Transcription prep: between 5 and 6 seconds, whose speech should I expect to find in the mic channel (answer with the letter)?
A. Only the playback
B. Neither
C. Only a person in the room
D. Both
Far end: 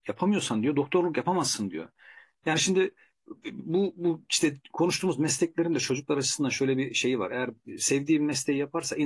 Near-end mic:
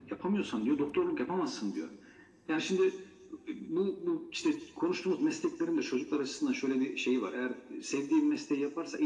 A